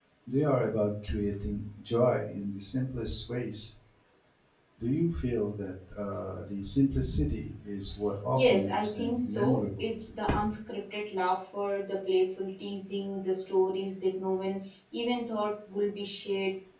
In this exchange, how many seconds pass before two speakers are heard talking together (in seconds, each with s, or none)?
8.3 s